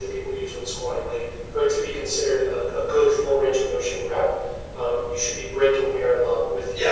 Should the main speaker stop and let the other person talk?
No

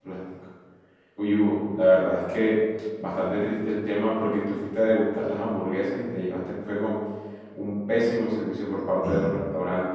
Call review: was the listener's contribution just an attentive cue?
Yes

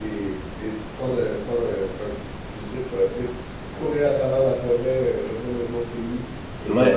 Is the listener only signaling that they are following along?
No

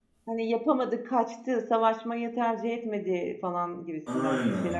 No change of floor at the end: No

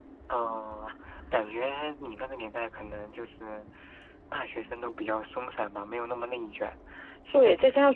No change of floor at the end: No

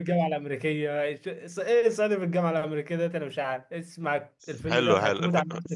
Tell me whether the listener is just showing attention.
No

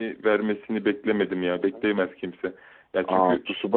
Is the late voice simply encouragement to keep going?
No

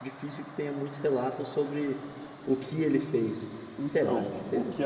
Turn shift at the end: Yes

